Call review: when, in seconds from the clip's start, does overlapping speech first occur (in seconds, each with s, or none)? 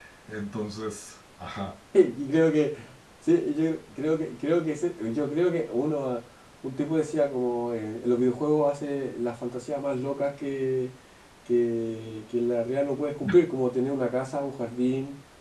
none